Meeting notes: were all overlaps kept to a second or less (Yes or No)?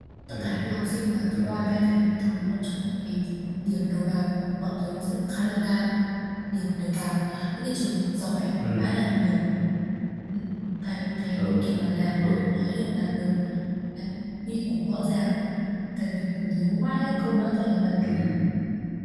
Yes